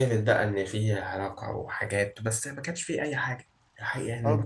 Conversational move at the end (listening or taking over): taking over